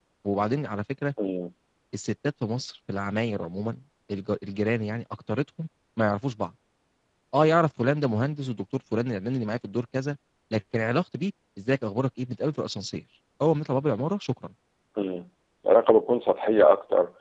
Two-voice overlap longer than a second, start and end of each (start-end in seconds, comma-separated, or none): none